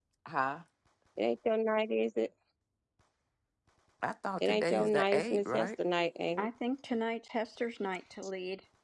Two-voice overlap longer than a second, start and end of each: 4.4-5.7

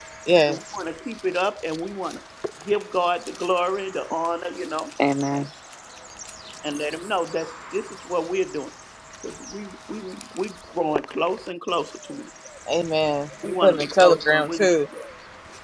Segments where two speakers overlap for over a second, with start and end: 13.4-14.7

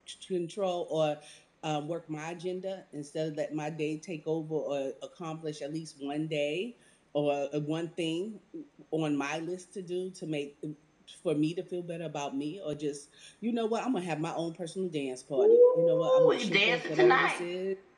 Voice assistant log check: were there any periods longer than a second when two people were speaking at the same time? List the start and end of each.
15.4-17.4

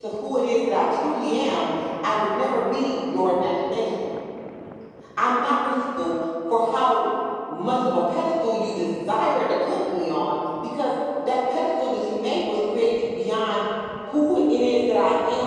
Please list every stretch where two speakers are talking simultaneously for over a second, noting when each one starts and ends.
none

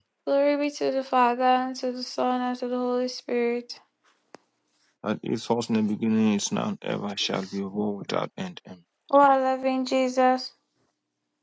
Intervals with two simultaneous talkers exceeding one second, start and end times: none

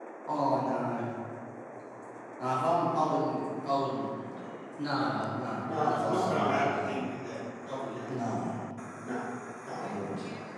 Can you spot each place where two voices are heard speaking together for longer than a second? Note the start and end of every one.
5.8-7.0

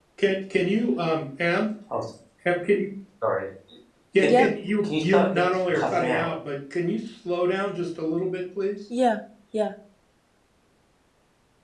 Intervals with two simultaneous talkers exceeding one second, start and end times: 4.8-6.3

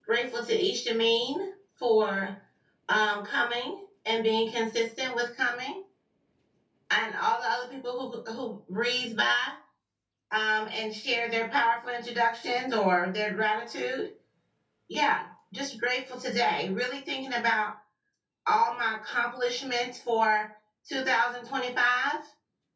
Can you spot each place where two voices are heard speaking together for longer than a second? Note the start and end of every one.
none

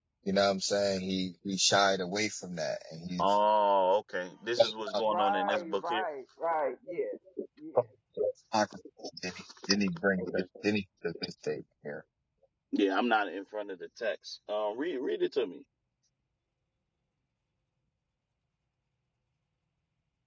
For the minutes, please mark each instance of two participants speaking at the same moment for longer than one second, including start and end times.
4.6-6.0

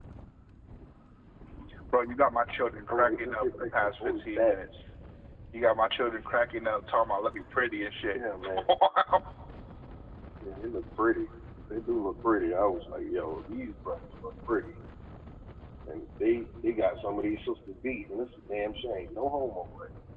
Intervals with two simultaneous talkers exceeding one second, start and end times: 2.9-4.5

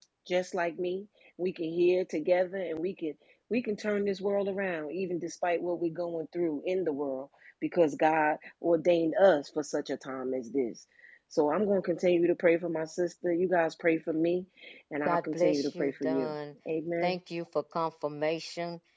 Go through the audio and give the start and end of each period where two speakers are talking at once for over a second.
15.0-16.3

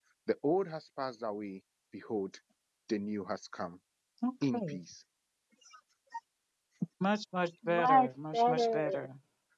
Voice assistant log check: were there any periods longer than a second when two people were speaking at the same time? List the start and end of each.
7.7-9.1

